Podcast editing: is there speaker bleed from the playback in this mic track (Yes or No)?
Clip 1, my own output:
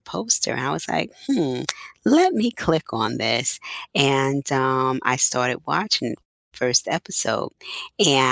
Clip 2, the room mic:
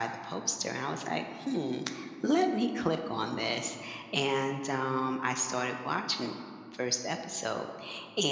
Yes